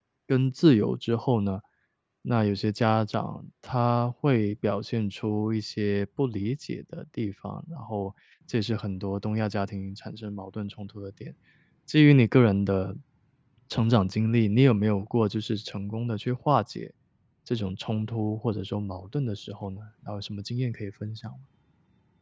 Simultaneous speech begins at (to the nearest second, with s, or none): none